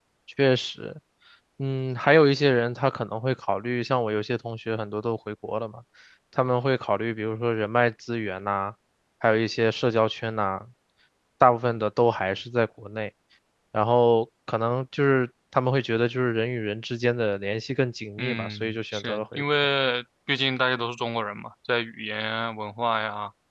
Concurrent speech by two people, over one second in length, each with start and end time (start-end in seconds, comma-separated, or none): 18.2-19.4